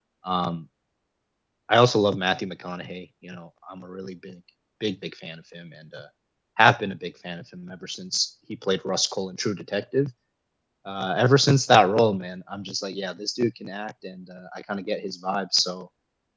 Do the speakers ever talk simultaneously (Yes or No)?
No